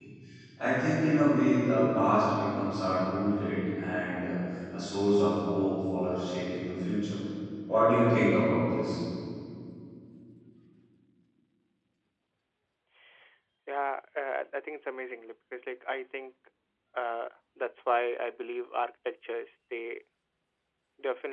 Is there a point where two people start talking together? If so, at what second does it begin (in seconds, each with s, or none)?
none